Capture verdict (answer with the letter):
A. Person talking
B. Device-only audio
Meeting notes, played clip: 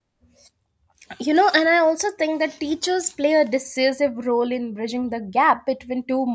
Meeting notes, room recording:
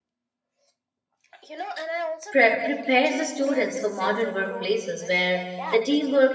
A